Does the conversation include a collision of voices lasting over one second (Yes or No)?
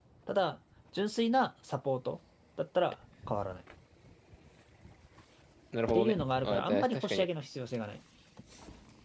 Yes